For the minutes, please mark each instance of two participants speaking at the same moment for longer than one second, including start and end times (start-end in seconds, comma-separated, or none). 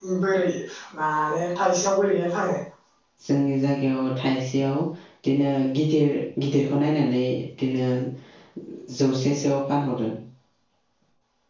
none